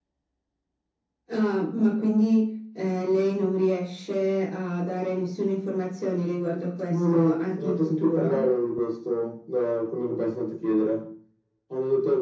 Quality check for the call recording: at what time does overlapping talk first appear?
6.9 s

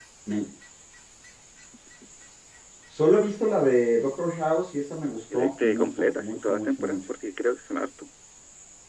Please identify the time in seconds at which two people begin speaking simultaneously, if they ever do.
5.3 s

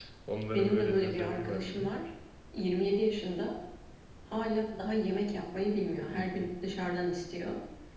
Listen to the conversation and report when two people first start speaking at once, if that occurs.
0.5 s

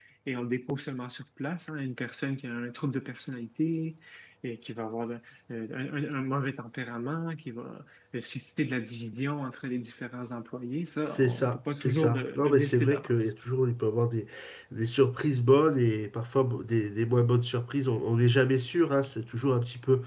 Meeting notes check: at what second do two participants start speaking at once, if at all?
11.1 s

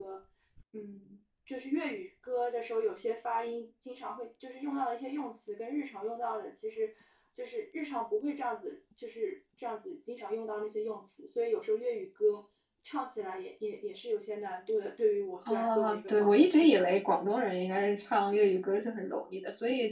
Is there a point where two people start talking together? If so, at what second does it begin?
15.4 s

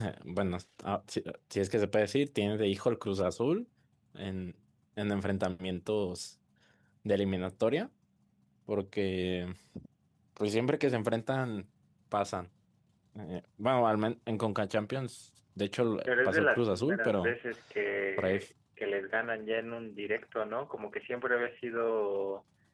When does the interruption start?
16.1 s

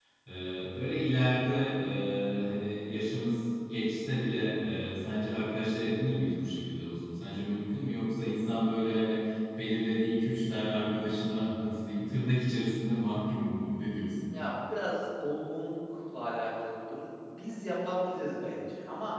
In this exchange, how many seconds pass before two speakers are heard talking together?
none

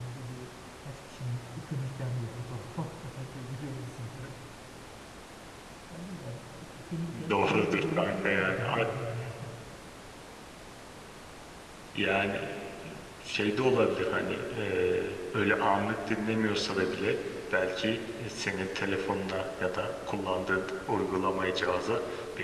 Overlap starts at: 7.3 s

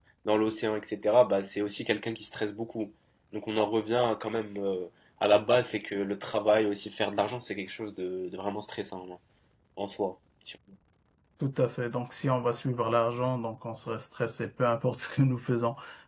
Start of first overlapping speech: none

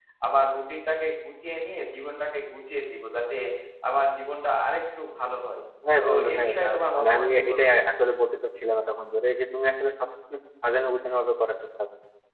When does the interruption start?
6.0 s

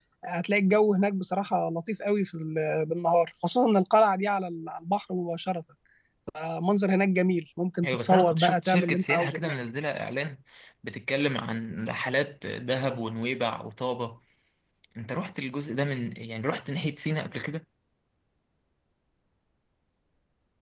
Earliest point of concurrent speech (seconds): 7.8 s

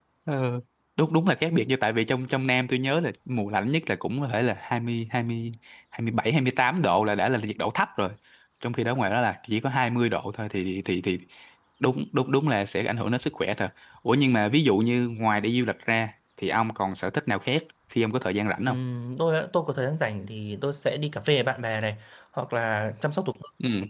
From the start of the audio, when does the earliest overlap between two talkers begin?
none

